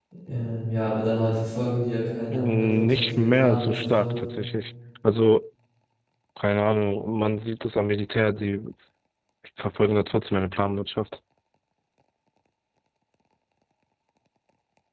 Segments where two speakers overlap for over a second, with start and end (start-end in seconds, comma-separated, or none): 2.3-4.2